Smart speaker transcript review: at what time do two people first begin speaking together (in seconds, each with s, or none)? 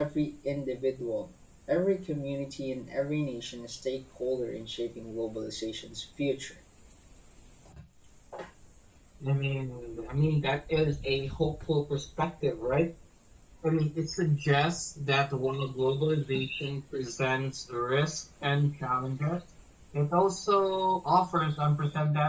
none